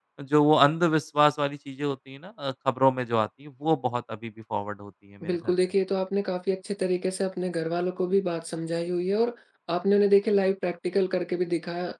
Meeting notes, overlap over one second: none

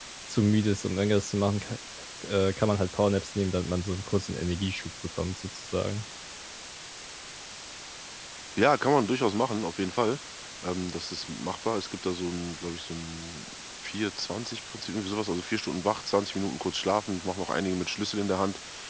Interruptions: none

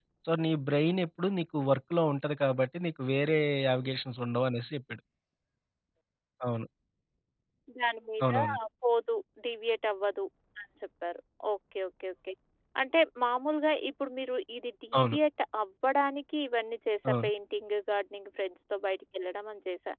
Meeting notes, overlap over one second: none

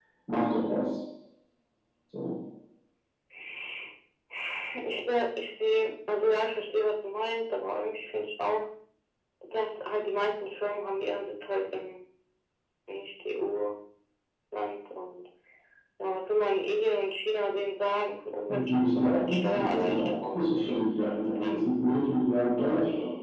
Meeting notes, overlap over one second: present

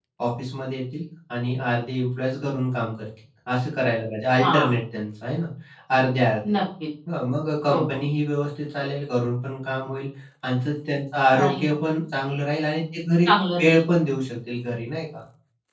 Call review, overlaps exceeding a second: none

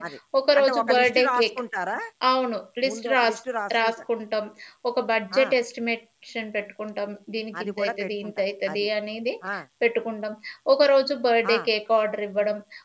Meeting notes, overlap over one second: present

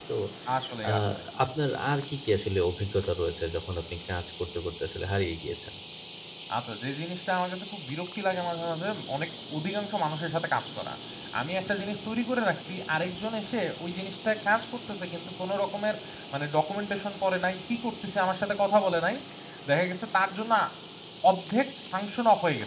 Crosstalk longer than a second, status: none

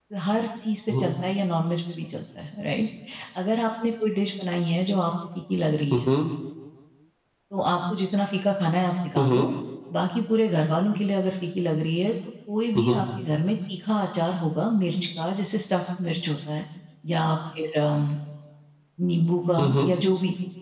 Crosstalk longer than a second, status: none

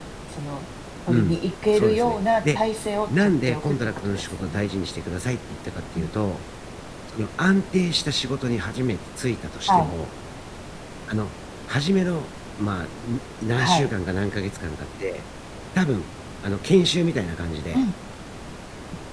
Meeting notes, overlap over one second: present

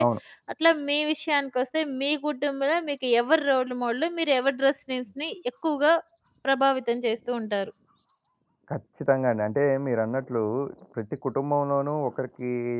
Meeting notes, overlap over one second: none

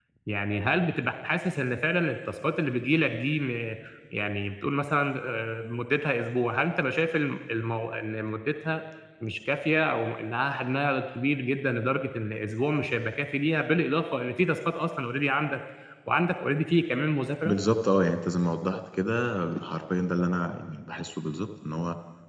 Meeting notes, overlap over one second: none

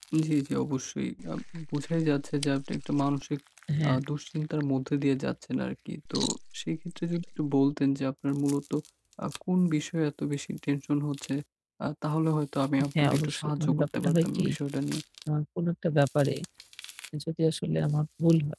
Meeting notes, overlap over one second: present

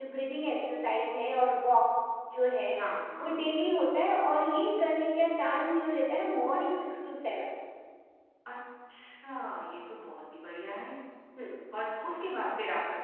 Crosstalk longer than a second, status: none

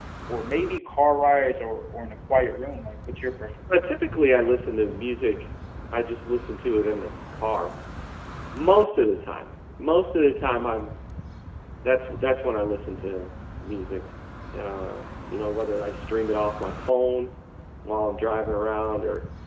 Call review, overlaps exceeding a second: none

